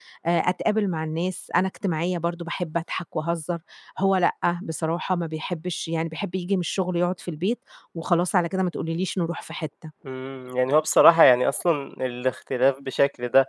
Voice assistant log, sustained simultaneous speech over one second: none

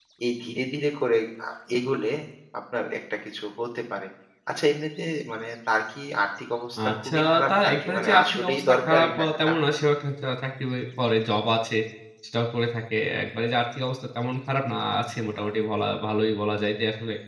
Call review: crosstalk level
present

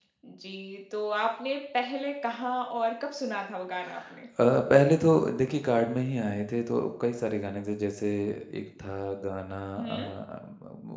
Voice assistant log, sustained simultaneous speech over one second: none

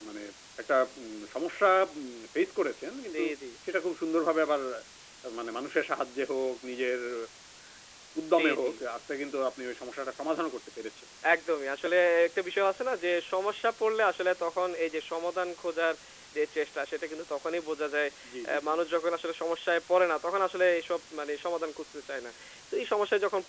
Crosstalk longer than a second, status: none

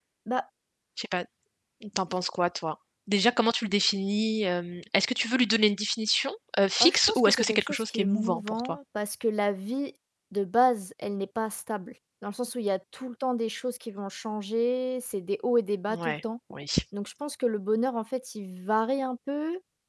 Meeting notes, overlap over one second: present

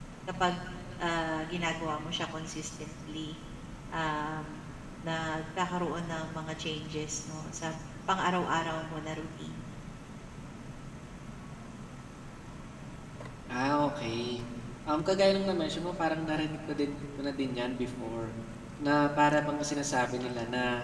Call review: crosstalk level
none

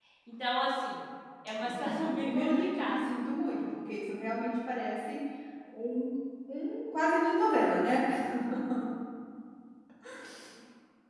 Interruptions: present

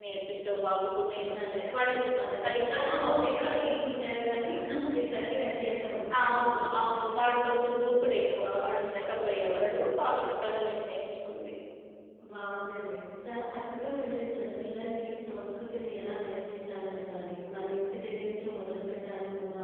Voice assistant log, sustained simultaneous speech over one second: present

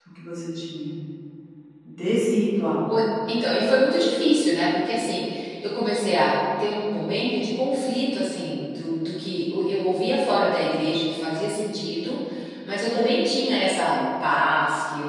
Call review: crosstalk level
none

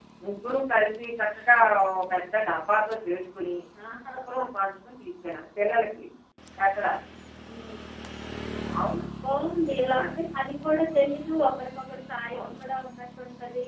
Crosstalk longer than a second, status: none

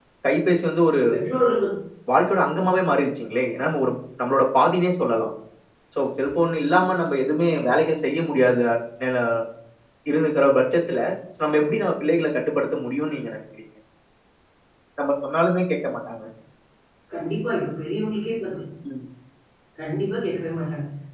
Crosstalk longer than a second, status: none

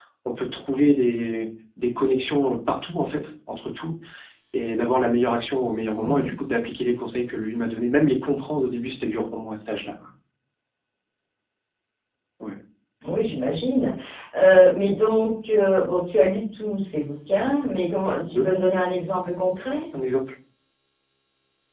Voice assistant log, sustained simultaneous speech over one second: none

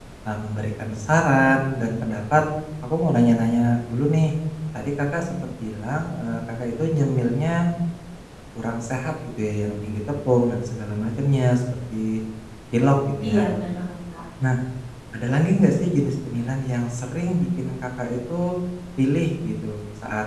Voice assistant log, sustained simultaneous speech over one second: none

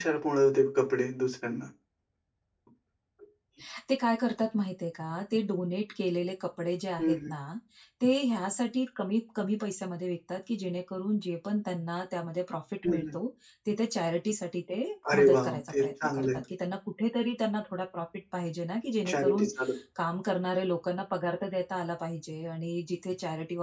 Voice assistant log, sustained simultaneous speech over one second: present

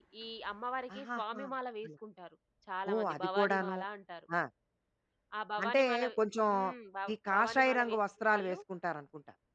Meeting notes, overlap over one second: present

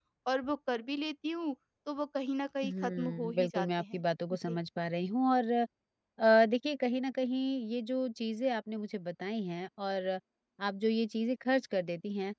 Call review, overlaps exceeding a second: present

